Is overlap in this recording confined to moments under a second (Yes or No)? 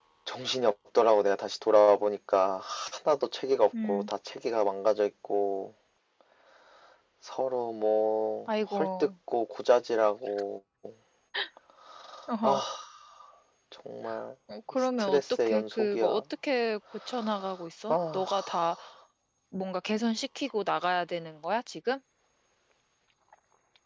No